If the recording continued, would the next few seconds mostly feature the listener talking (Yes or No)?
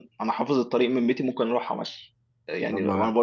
No